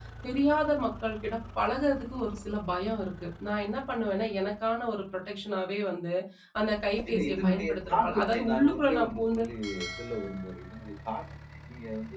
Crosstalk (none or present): present